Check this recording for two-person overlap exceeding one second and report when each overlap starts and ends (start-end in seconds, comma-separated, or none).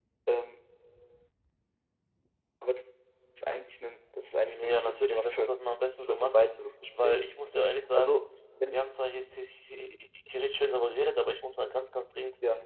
4.4-5.6